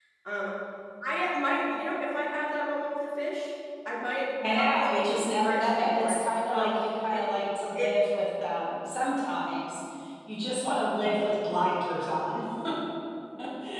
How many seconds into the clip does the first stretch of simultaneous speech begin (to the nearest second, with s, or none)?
4 s